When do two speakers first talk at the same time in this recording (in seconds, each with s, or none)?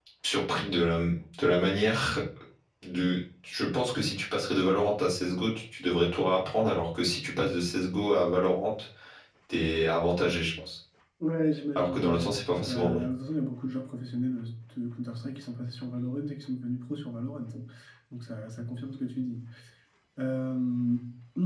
11.8 s